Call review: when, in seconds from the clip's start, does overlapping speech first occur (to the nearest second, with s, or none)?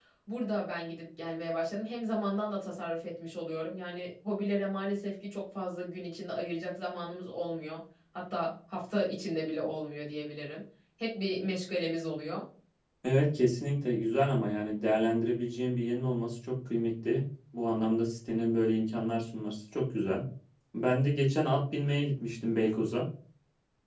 none